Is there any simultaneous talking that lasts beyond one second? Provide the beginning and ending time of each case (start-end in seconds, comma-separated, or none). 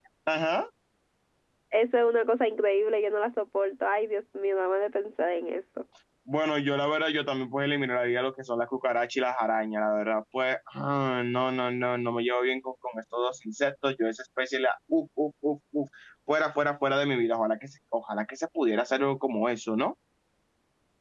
none